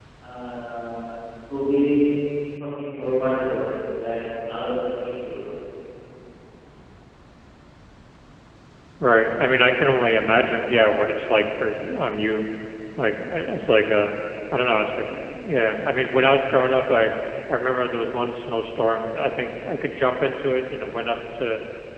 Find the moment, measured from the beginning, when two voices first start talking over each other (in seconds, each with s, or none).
none